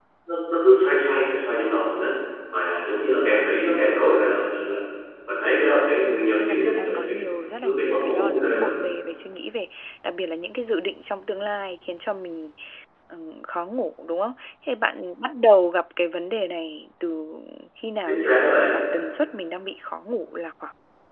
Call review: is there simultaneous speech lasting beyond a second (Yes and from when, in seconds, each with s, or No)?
Yes, from 6.0 s